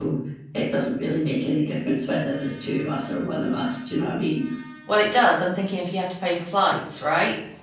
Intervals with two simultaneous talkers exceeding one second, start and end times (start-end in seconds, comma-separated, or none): none